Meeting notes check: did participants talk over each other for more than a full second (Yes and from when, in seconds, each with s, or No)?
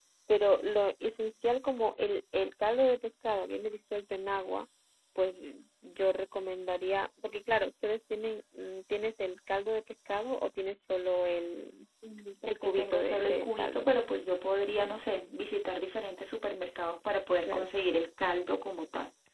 Yes, from 12.5 s